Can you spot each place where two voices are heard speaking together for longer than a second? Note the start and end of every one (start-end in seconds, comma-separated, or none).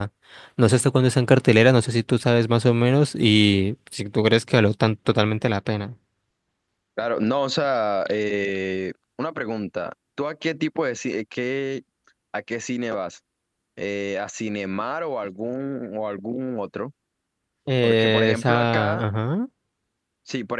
17.8-19.0